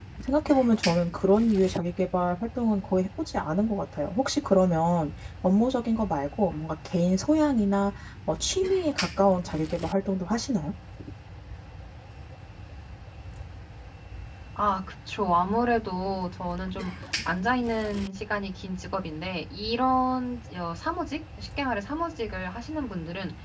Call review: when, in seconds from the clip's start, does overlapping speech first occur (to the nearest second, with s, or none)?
none